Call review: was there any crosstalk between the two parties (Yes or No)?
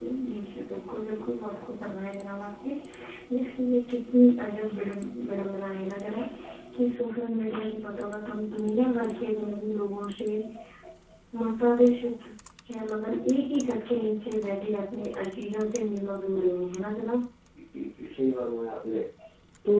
No